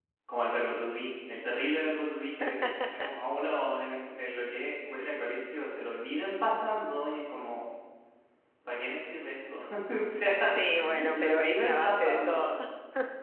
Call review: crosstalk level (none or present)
present